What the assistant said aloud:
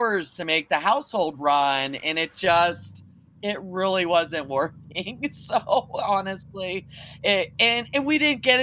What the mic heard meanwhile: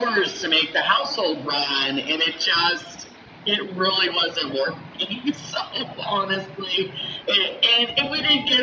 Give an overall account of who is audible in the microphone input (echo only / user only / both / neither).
echo only